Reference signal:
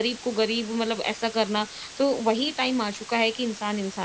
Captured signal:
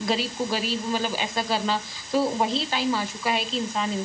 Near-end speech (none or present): none